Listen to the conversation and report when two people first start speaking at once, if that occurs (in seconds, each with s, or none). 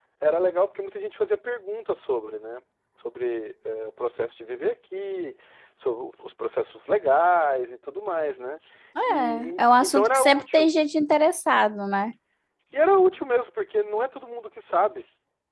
9.1 s